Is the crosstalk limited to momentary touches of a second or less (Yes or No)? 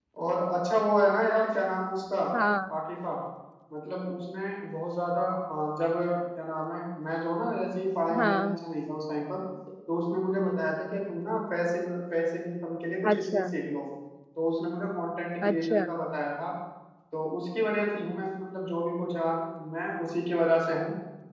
Yes